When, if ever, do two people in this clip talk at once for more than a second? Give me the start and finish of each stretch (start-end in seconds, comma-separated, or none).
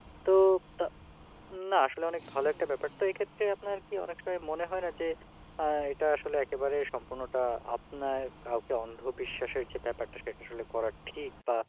none